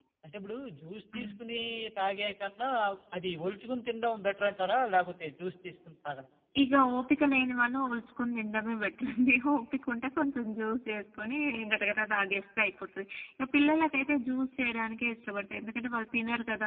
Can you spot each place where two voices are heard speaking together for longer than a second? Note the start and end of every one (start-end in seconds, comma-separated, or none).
none